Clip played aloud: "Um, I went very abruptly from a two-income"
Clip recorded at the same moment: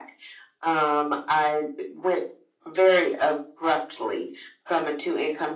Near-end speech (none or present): none